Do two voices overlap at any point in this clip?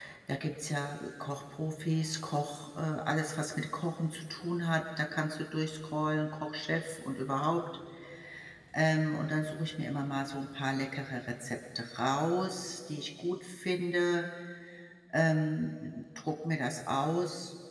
No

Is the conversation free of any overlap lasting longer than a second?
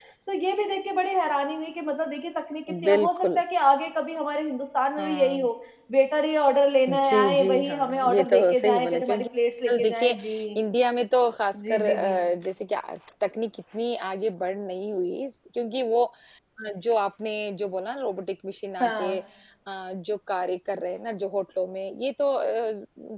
No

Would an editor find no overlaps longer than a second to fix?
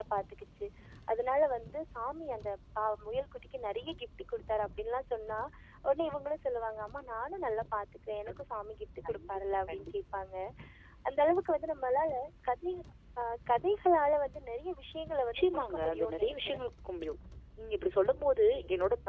No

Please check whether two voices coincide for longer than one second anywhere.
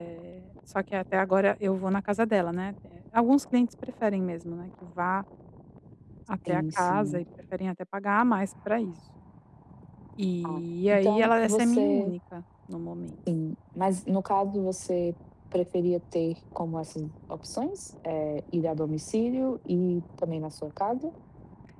Yes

